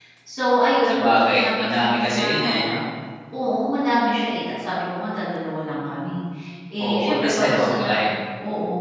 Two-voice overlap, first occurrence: 0.9 s

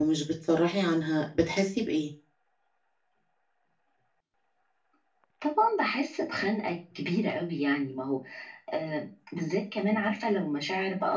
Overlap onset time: none

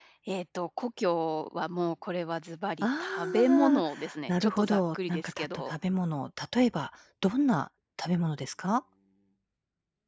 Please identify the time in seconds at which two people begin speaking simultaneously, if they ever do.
2.8 s

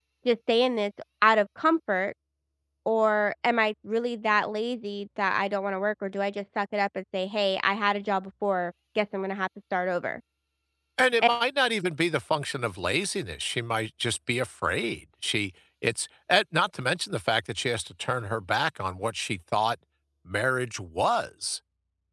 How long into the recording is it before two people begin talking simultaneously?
none

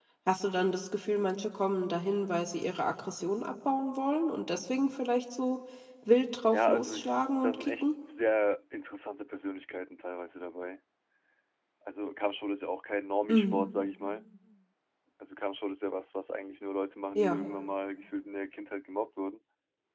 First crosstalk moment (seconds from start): 6.5 s

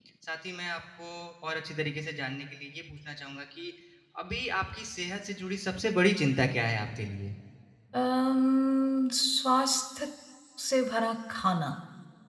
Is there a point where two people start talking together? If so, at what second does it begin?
none

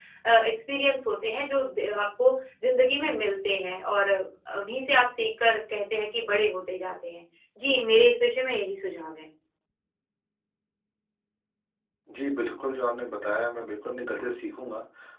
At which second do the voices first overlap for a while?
none

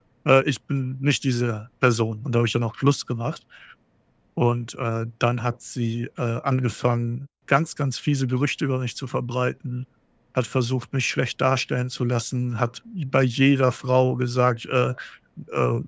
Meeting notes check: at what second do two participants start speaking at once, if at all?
none

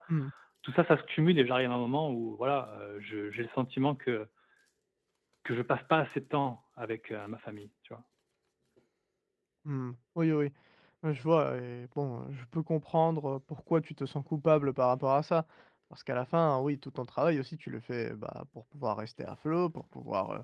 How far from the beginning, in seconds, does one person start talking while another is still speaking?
none

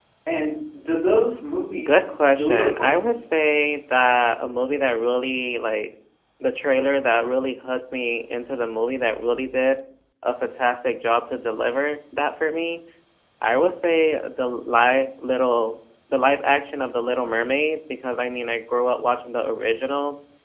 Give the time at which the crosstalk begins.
1.8 s

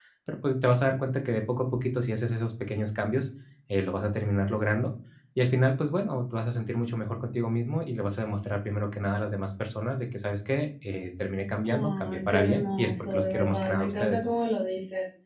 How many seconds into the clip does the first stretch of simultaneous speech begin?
11.6 s

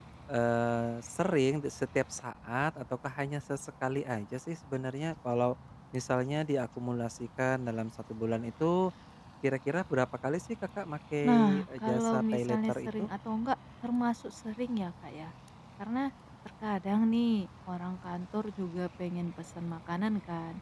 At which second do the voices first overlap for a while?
11.2 s

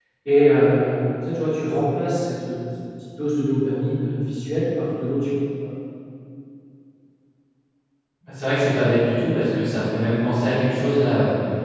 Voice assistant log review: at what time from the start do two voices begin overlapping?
none

